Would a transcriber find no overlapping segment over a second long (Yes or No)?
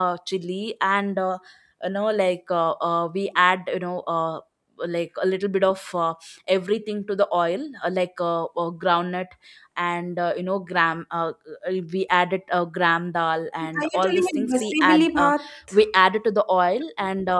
No